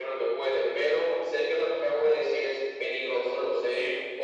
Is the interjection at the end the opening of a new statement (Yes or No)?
No